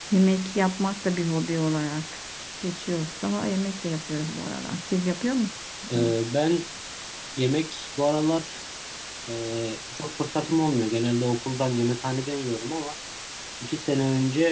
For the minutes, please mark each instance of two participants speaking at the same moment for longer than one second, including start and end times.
none

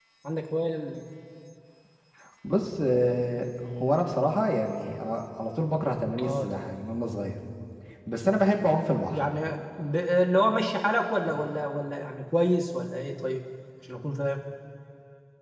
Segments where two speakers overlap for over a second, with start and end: none

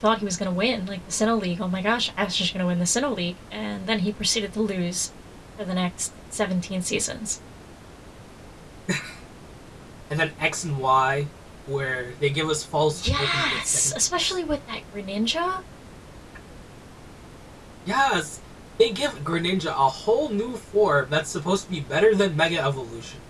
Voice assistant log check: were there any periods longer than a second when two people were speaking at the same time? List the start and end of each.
12.9-14.4

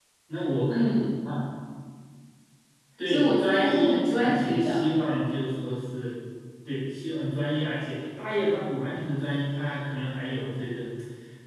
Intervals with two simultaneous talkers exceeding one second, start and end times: 3.1-4.8

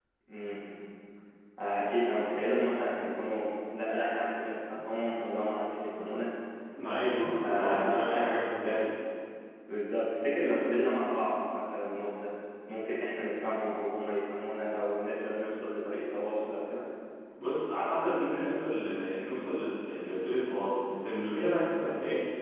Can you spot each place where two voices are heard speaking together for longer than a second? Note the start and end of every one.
7.2-8.5

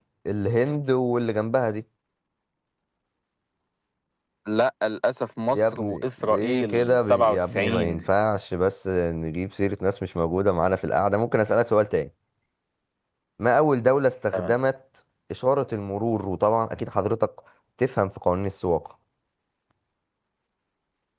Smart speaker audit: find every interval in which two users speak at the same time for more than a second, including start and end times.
5.5-8.0

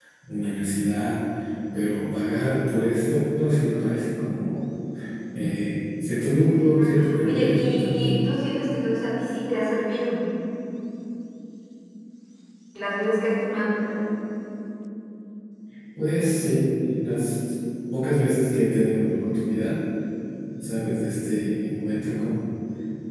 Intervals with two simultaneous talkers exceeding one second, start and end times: 6.5-8.3

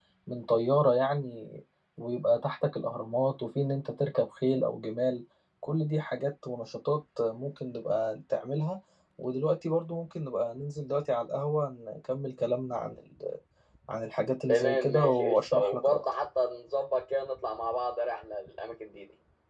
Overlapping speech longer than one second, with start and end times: 14.5-16.1

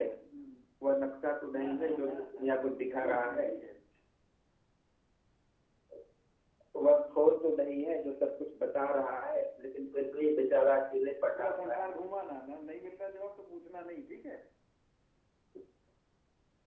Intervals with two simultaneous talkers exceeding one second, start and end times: 1.6-3.5

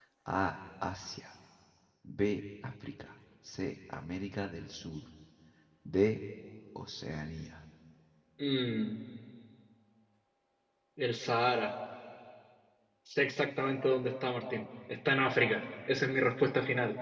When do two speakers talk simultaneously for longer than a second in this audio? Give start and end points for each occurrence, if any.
none

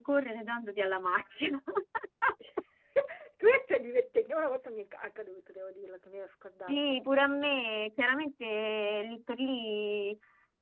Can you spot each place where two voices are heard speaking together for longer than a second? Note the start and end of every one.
none

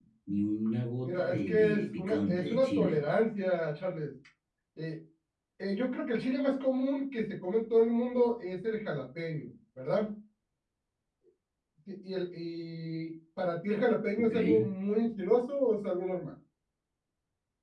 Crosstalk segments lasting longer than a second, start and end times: 1.0-3.0

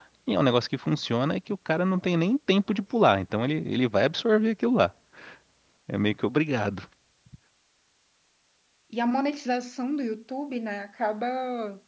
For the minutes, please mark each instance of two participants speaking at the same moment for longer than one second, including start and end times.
none

